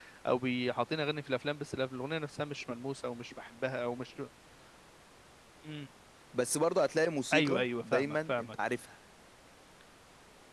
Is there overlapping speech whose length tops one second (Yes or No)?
Yes